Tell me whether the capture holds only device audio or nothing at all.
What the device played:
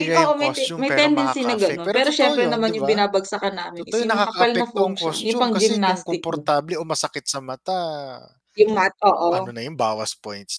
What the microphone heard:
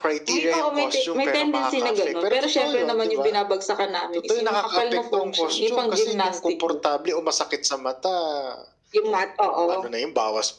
Yes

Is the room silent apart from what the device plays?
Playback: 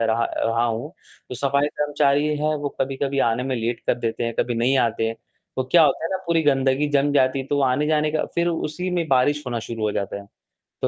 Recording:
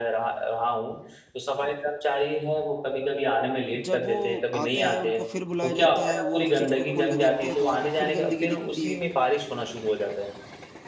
No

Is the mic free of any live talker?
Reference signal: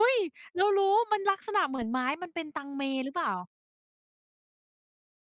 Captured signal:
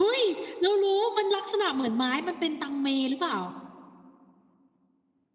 Yes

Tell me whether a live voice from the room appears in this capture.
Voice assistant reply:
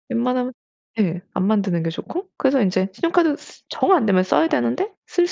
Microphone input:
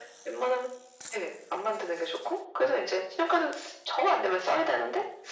No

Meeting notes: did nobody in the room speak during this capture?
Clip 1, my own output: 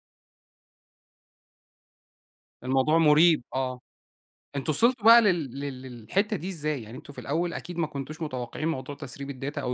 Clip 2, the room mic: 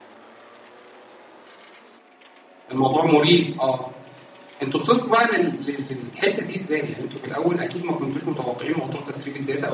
Yes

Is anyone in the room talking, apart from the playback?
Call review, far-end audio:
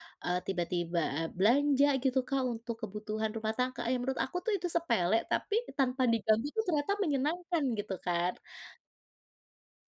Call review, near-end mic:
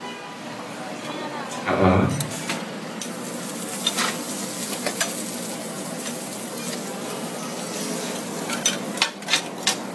Yes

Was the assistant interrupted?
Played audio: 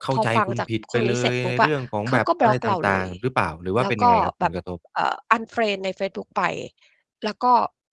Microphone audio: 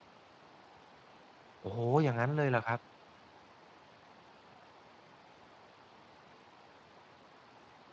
Yes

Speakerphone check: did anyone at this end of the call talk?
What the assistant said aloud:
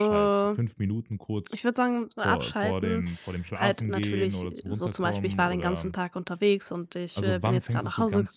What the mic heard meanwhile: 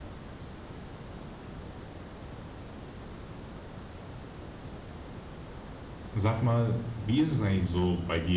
Yes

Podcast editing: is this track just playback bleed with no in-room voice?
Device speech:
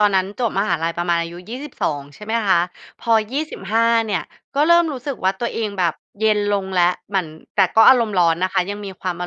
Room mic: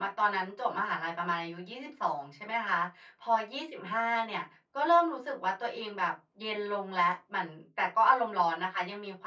Yes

